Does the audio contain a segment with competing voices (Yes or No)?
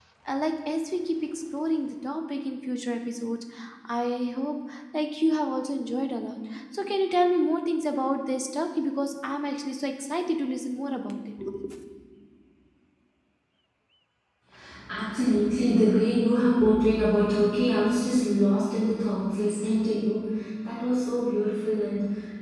No